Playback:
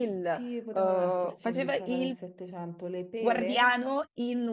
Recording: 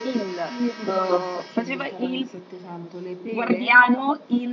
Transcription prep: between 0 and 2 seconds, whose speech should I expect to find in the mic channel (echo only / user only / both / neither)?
echo only